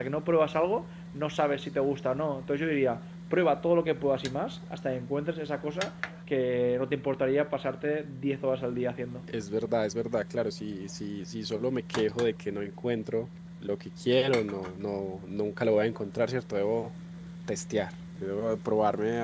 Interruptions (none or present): none